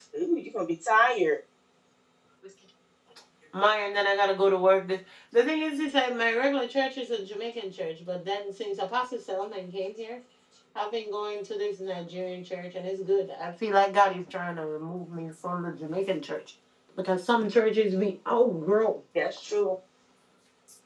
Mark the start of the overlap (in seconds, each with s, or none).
none